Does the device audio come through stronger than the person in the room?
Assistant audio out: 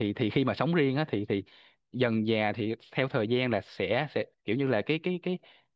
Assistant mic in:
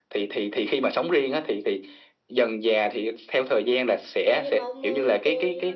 Yes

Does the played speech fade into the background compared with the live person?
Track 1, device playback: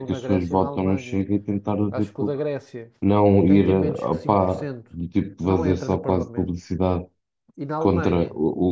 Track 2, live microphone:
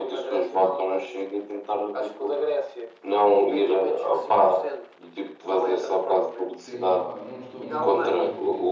No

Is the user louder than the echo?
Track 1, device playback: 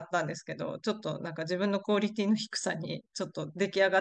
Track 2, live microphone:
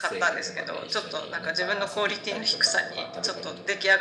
No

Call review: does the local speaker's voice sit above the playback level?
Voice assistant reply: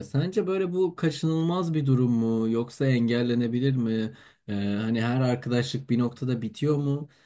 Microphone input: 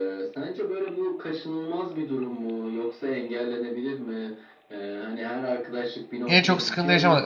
Yes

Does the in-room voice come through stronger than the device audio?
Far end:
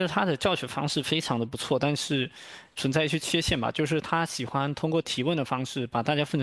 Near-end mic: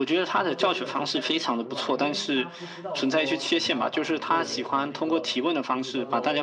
No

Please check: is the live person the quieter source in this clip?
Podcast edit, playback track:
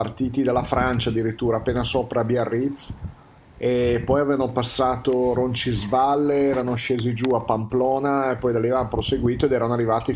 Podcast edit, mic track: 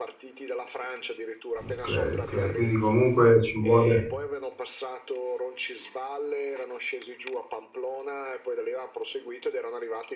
No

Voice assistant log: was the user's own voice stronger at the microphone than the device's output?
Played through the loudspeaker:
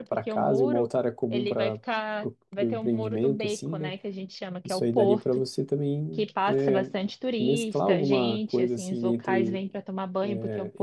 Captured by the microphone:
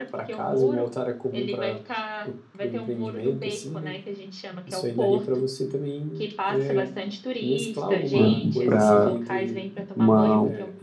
Yes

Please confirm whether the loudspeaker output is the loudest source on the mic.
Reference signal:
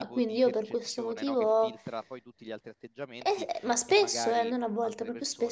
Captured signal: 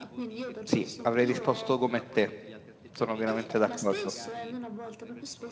No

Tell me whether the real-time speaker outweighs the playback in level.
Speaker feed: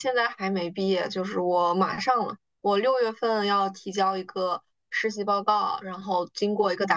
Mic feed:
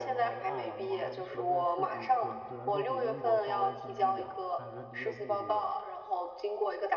No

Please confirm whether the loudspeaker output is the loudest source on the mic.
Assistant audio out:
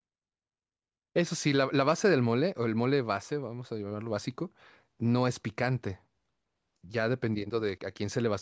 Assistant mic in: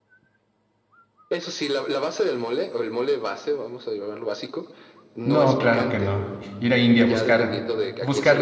No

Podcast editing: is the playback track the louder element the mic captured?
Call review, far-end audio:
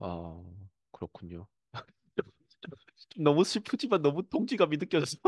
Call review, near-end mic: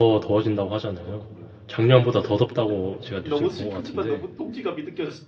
No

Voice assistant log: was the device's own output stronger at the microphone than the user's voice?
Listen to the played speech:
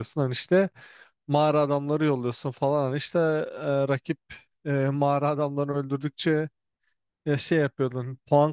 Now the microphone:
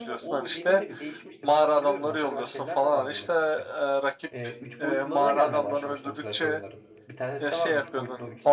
Yes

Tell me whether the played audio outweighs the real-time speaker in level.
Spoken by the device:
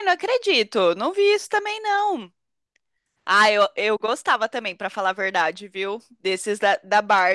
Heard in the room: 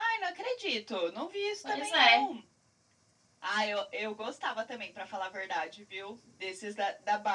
No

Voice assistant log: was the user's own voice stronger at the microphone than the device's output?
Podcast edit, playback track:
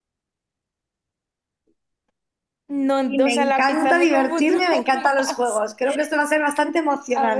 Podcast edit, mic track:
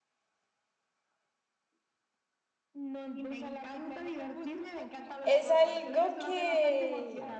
Yes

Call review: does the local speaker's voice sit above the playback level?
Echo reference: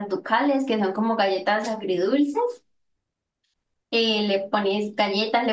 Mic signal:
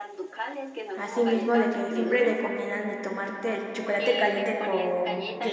Yes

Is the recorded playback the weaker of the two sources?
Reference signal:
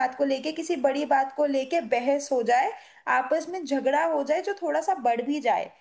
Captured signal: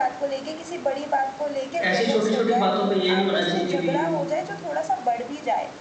Yes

